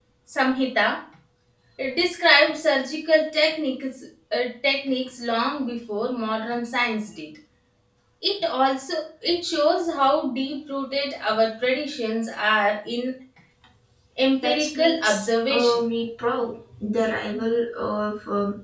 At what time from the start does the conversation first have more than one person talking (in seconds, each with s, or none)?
14.4 s